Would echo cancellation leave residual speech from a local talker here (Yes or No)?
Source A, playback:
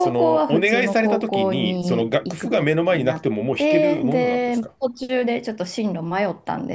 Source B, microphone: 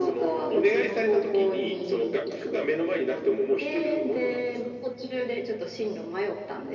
No